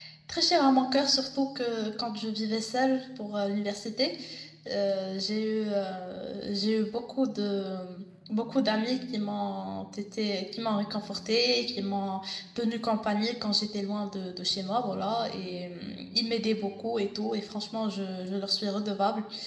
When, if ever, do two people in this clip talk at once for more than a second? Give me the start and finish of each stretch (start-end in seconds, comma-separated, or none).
none